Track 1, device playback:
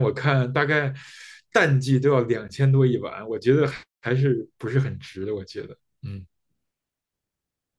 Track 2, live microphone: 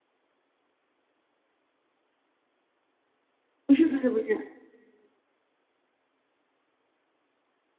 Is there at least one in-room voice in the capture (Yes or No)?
Yes